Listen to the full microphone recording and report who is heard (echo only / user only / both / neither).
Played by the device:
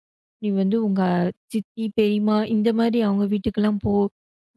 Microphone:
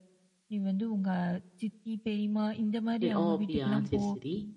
both